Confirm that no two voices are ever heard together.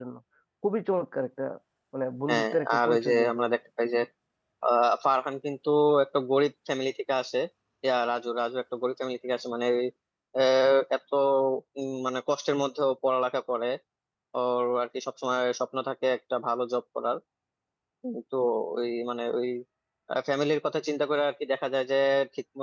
No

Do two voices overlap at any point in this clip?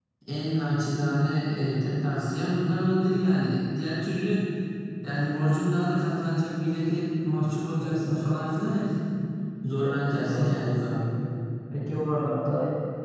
Yes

